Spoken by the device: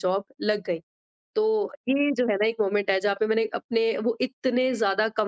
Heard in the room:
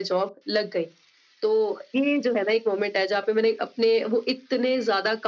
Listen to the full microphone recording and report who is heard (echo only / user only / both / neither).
echo only